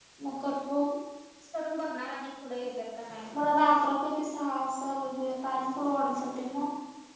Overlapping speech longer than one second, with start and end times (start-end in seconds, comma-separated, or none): none